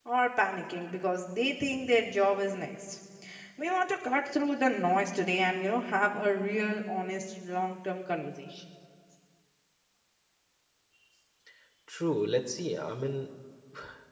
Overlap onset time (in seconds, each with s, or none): none